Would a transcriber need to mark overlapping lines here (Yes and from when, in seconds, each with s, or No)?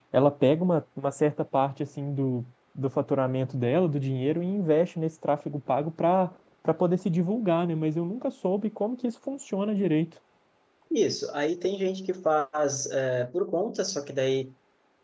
No